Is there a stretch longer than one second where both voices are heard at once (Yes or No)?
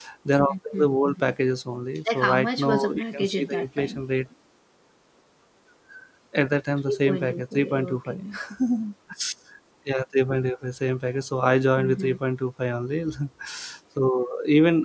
Yes